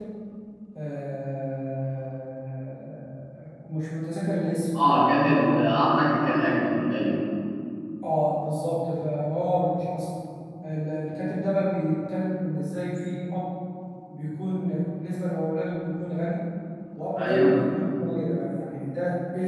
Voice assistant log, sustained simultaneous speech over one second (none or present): none